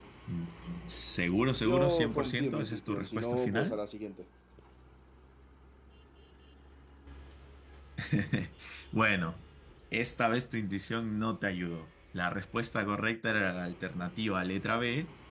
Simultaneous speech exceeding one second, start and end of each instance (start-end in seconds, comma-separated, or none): 1.5-3.8